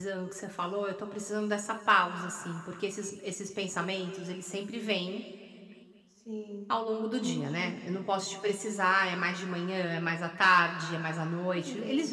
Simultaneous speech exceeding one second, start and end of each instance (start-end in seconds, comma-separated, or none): none